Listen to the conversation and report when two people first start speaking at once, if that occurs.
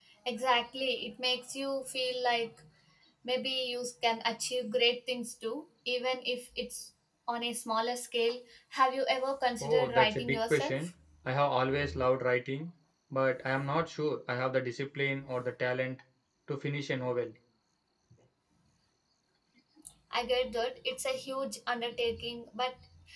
10 s

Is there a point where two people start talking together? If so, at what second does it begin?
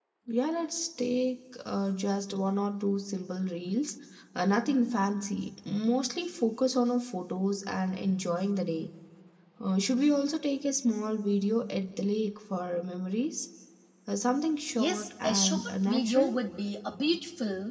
15 s

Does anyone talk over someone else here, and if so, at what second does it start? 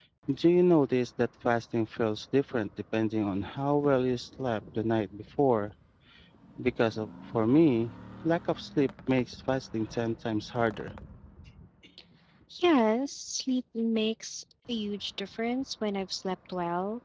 none

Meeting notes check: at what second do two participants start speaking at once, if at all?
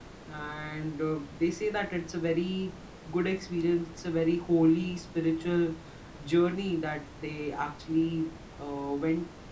none

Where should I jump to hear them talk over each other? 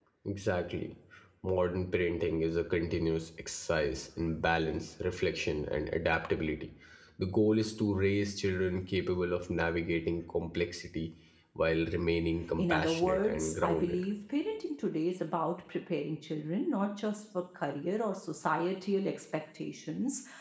13 s

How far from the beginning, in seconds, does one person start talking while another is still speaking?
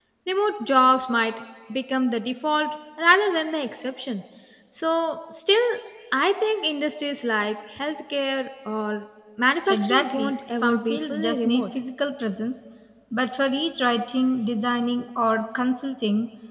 10 s

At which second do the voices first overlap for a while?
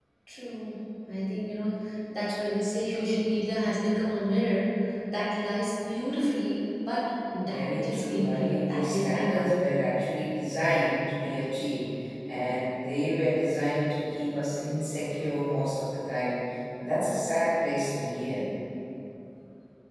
7 s

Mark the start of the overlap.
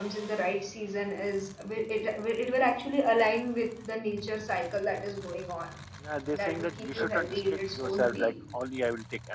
6 s

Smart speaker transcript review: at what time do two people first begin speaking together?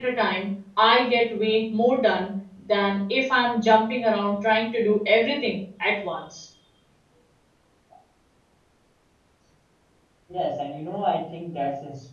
none

